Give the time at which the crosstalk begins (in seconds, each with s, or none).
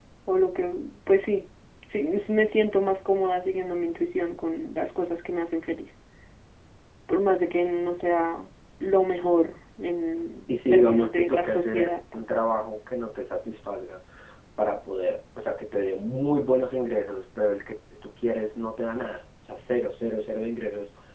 10.5 s